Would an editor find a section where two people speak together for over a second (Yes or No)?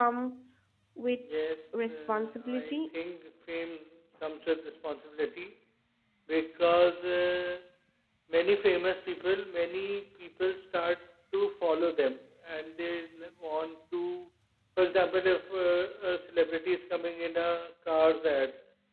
Yes